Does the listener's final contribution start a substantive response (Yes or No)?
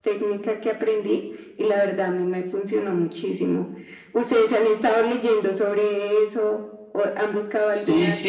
Yes